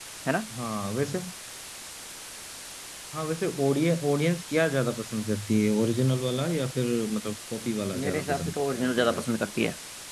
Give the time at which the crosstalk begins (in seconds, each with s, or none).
7.9 s